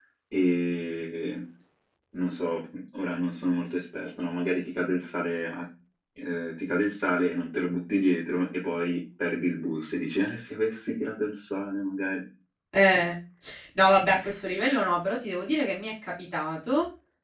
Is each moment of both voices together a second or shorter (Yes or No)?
Yes